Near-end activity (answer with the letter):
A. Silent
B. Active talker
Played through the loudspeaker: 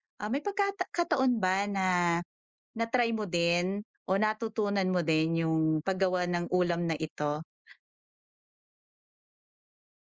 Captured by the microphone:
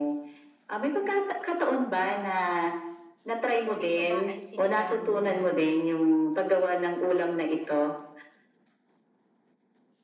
B